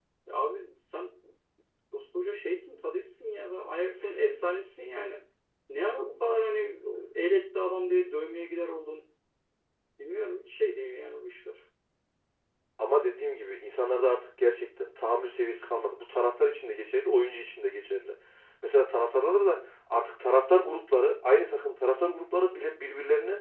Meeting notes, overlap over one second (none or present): none